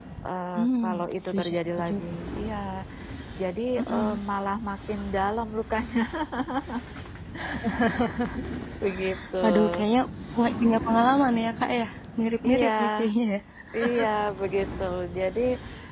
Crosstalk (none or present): present